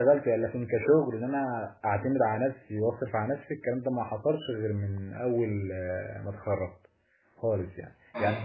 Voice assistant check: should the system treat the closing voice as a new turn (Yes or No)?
Yes